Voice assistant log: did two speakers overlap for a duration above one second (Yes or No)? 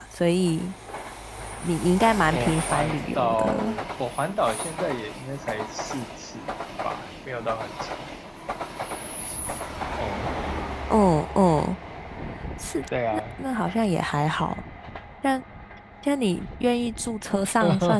Yes